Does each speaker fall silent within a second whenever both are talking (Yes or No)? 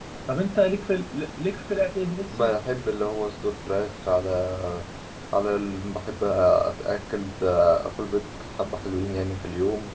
Yes